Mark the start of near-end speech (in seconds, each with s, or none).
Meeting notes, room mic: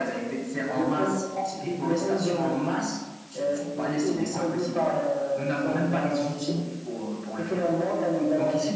none